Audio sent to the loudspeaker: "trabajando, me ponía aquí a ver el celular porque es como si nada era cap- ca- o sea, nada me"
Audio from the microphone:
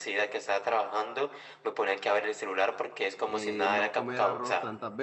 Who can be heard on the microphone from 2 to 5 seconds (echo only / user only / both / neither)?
both